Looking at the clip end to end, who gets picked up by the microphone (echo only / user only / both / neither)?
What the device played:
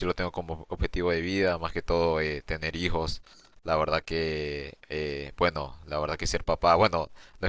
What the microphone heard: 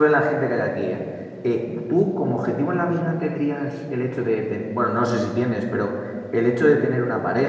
user only